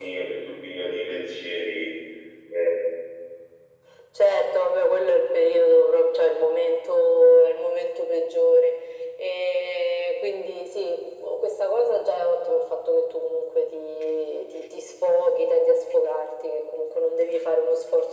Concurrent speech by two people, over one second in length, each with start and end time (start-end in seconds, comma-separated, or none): none